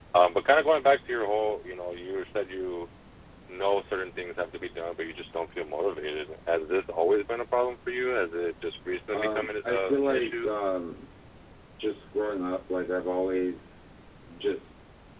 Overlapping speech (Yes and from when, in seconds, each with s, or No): Yes, from 9.1 s